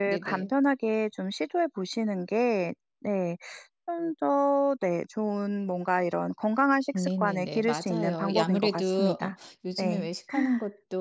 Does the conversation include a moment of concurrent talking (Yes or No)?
Yes